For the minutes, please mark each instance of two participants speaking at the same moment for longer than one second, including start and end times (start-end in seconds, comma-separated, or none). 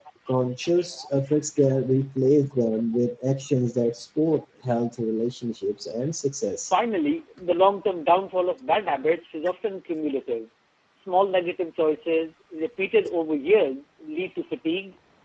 none